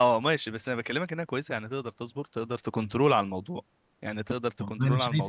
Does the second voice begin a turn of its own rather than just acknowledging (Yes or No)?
Yes